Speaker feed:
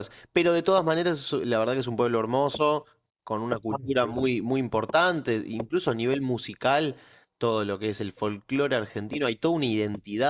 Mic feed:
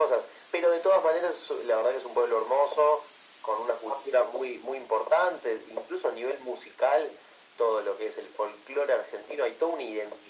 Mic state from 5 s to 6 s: echo only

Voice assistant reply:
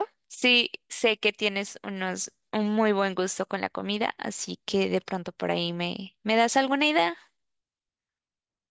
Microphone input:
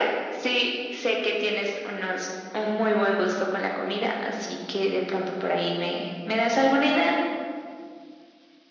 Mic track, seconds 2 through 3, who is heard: echo only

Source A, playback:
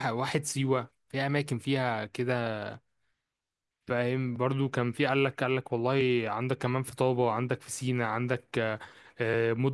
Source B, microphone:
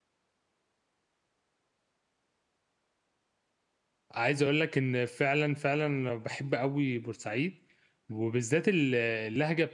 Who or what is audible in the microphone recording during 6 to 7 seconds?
user only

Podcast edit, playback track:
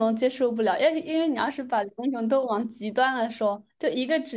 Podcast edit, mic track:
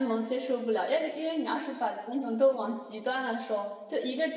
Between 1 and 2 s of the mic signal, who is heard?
echo only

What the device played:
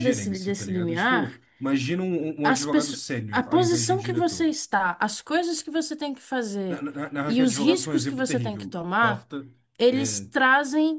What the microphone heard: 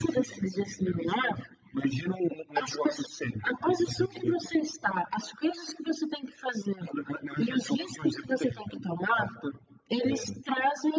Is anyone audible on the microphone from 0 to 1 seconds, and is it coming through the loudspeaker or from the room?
echo only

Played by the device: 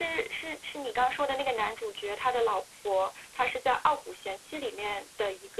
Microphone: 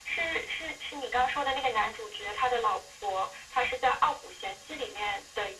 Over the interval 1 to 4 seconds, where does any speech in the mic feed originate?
echo only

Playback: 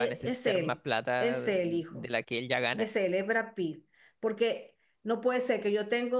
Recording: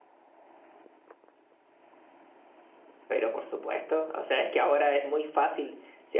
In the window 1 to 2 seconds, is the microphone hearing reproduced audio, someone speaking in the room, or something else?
neither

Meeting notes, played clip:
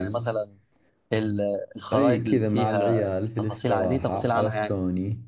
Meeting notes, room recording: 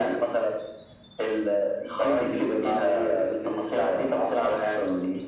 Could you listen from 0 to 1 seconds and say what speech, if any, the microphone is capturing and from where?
echo only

